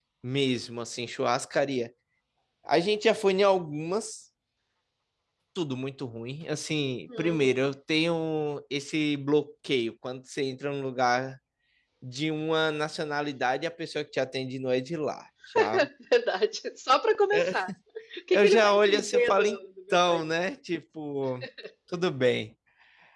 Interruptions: present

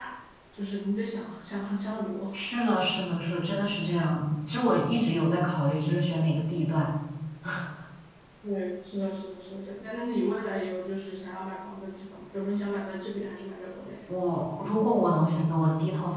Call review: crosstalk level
none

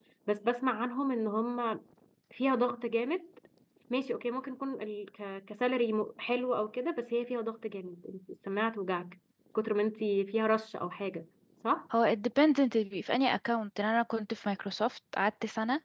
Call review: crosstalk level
none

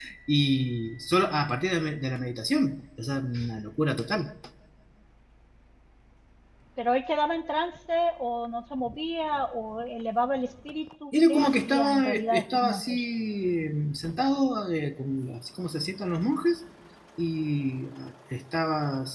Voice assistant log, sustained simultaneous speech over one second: present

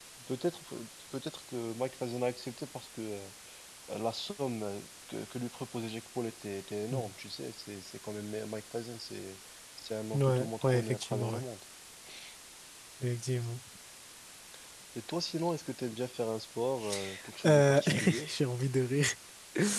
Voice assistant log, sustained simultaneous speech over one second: present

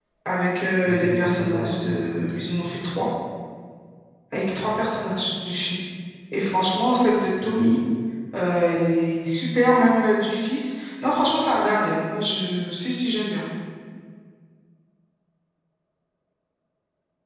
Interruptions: present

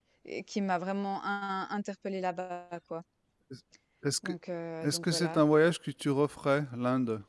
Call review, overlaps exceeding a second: none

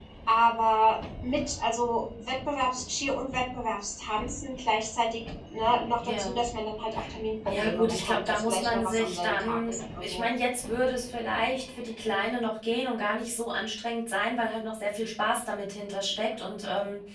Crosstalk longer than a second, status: present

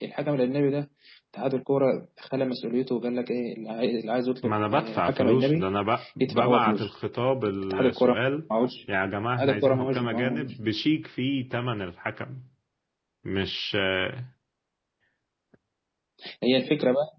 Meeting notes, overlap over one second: present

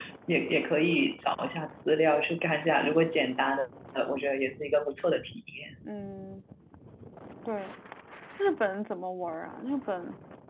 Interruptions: none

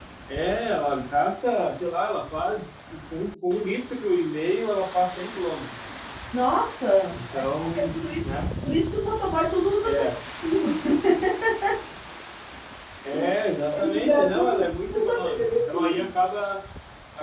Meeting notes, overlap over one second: present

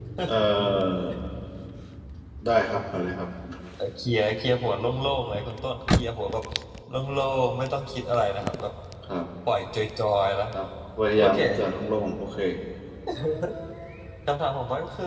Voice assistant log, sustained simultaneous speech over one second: none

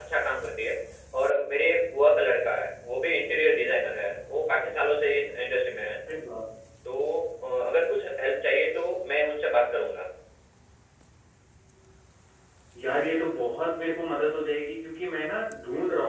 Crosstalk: none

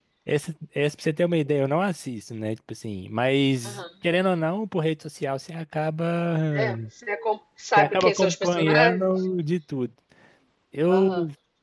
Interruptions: present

